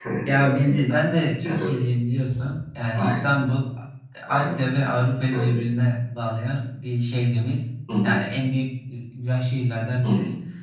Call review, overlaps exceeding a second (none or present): none